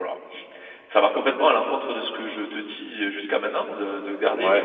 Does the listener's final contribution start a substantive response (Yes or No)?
Yes